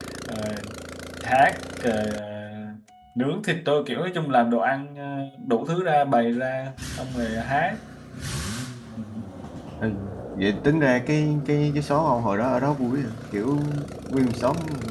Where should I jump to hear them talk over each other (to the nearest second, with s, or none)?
none